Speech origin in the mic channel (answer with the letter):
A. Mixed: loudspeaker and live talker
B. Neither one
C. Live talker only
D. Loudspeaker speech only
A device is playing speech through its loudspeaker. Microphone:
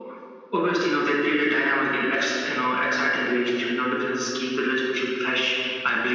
D